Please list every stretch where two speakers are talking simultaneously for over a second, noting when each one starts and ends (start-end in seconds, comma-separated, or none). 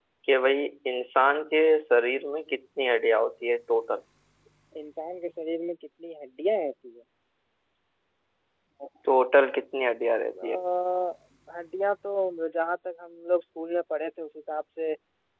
none